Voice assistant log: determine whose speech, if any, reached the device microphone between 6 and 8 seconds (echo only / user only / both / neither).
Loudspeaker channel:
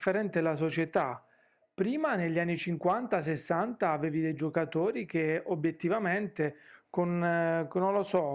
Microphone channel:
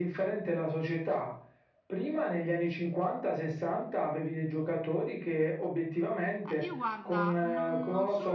both